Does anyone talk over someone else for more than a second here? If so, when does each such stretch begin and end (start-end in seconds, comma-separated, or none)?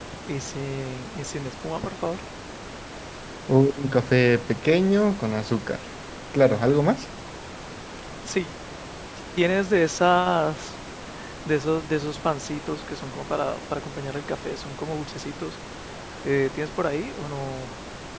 none